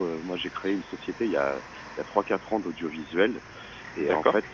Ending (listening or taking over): listening